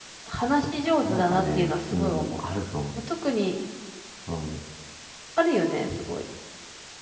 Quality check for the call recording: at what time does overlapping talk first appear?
1.0 s

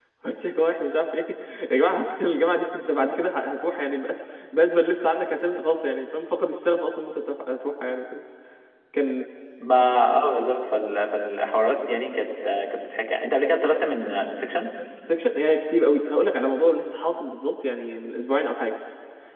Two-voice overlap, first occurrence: none

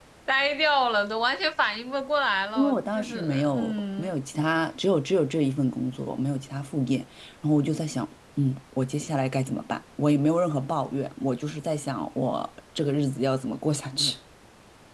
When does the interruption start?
2.5 s

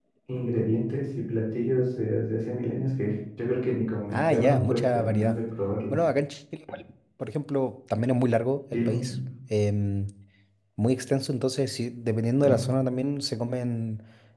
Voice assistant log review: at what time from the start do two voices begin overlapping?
4.1 s

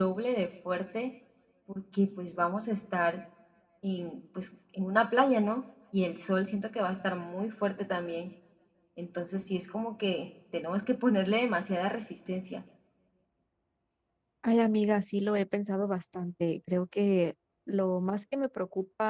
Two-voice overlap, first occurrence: none

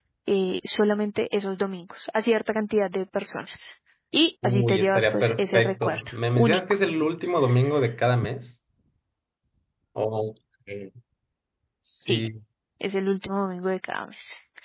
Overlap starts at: 4.4 s

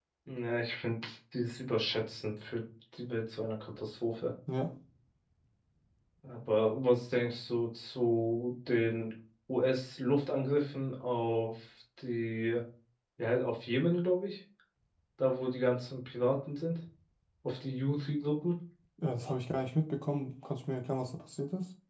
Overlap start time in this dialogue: none

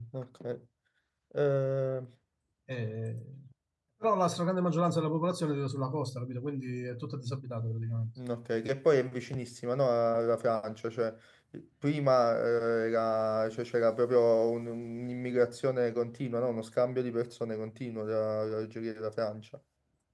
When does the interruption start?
none

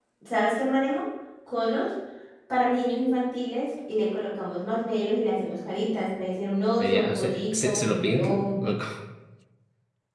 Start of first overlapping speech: 6.8 s

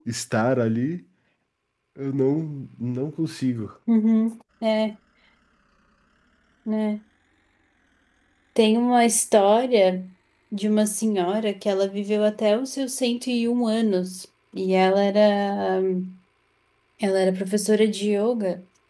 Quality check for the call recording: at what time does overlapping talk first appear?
none

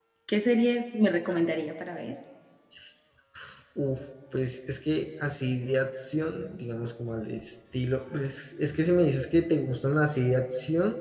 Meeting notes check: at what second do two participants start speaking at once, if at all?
none

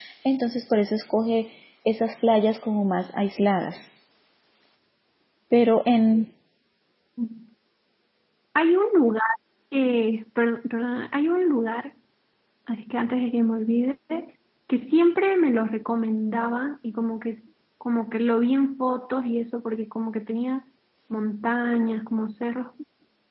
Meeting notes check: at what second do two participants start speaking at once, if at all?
none

